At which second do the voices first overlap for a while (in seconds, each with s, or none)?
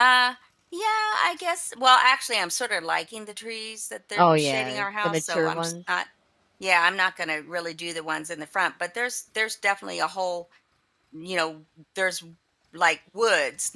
4.2 s